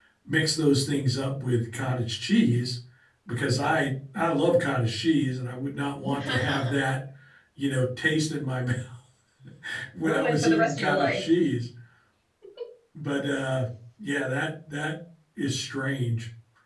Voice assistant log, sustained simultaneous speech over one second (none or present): present